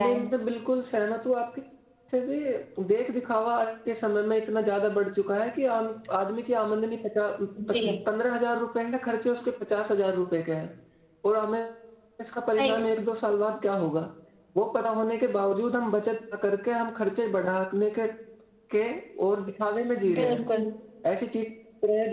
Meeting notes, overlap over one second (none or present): none